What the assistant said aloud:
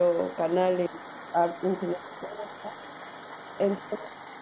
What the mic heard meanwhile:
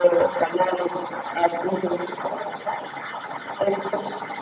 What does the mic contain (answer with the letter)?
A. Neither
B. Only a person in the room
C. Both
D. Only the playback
D